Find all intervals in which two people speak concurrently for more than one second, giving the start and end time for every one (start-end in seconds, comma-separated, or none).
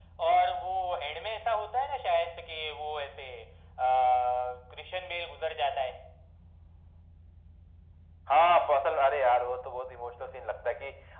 none